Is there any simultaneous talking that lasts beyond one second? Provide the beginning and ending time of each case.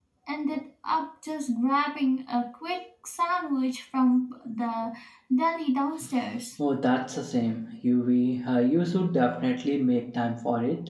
none

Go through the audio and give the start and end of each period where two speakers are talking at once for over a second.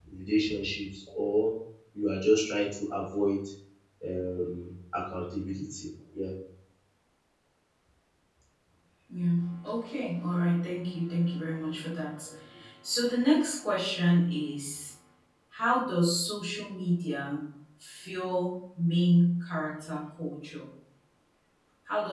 none

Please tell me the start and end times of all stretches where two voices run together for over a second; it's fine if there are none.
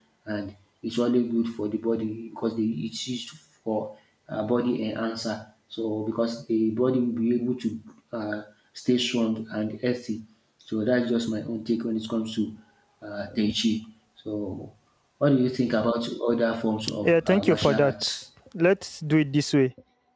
17.0-18.2

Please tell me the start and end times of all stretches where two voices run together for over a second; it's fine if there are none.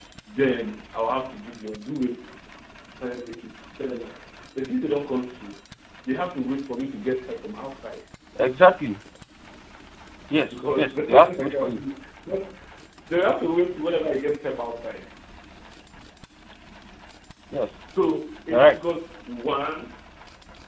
10.5-11.8

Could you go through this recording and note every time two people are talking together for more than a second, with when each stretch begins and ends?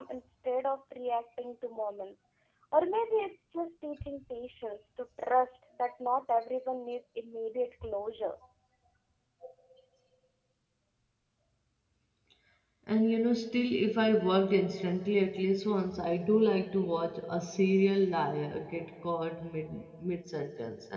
none

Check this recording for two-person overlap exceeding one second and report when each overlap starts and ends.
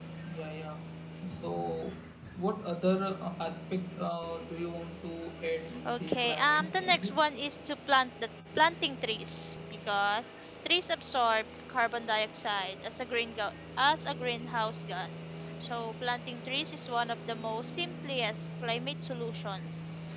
5.8-7.2

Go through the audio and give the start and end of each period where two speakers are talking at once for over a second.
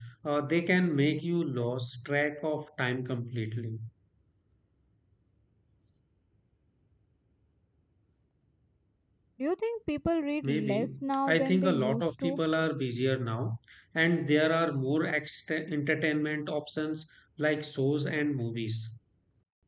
10.4-12.4

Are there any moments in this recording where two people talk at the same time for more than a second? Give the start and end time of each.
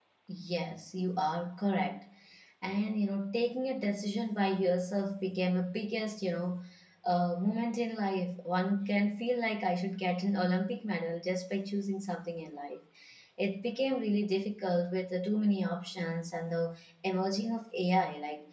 none

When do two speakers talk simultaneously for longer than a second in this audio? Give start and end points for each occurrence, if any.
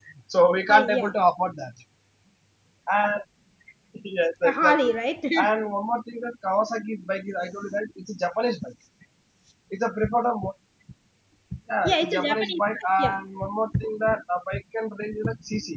11.8-13.2

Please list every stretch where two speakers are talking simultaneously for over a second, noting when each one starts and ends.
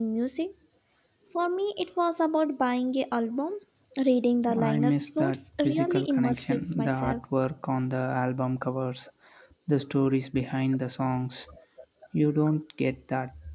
4.6-7.2

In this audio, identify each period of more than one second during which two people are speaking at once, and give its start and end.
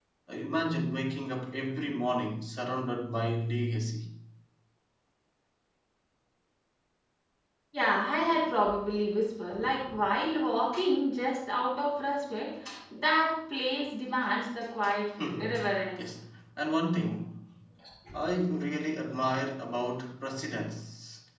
none

